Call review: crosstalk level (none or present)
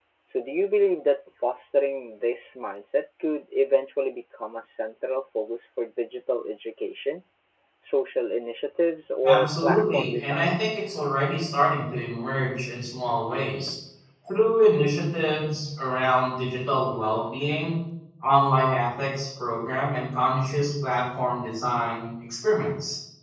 present